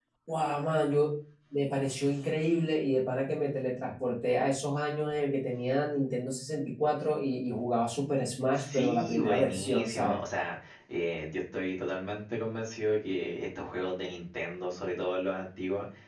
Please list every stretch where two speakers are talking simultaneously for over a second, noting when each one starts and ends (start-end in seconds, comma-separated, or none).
8.5-10.2